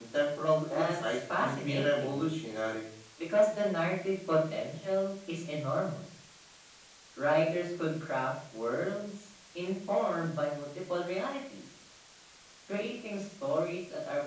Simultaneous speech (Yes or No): Yes